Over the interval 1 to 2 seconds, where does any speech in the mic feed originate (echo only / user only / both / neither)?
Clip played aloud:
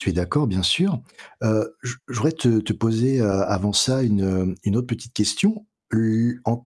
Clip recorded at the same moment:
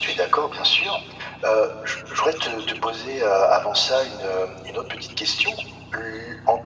echo only